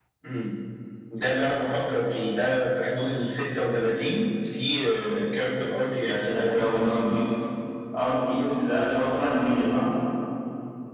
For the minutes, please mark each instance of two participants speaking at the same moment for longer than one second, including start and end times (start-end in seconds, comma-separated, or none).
6.0-7.2